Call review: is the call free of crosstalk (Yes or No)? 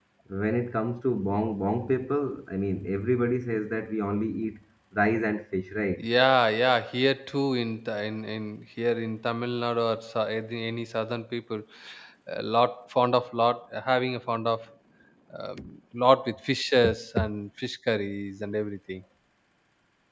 Yes